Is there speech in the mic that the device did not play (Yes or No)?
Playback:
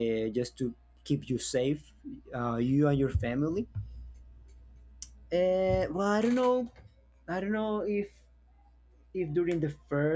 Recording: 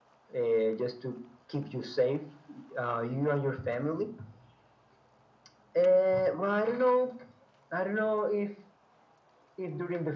No